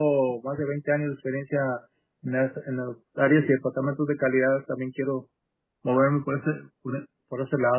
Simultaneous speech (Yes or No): No